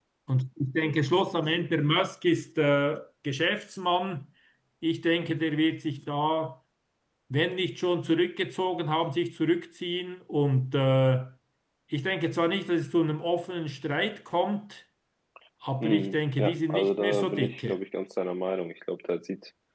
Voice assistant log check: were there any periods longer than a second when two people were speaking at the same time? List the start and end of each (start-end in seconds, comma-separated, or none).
15.8-17.8